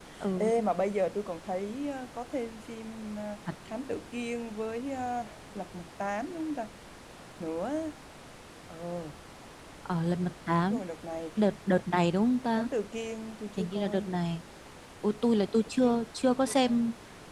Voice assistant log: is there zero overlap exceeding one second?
Yes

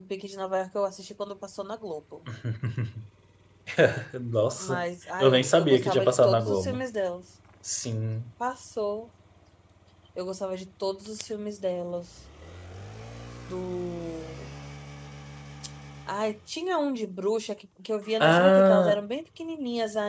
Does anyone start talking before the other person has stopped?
Yes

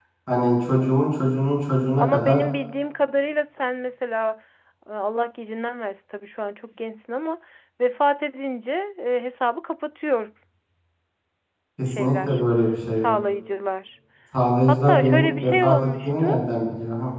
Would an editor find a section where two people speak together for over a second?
Yes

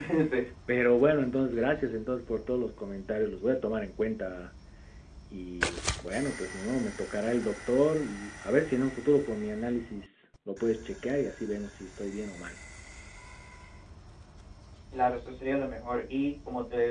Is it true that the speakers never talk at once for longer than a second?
Yes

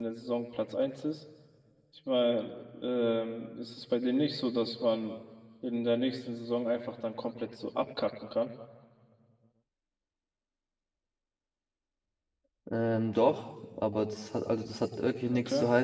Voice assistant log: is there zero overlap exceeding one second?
Yes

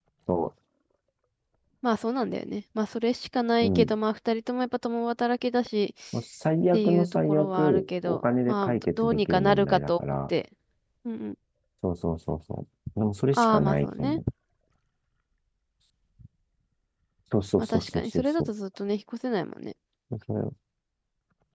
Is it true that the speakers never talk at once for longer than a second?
No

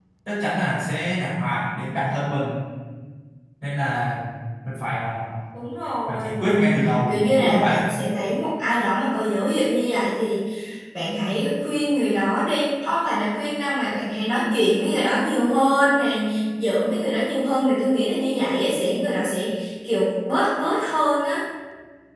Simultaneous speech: Yes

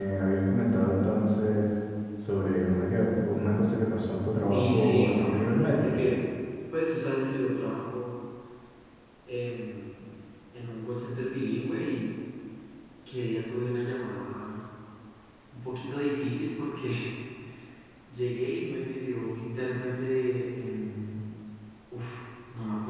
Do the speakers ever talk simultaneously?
Yes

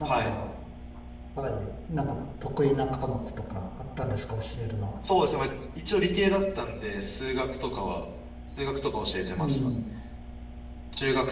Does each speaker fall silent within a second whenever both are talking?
Yes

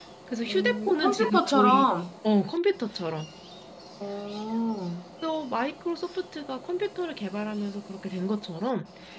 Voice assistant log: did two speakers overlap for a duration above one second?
Yes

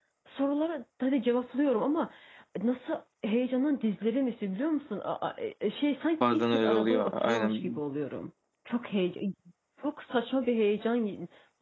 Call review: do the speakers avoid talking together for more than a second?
No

